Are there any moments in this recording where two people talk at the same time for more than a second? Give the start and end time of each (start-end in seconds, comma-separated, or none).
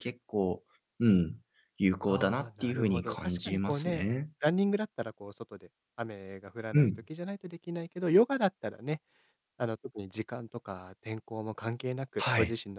2.1-4.0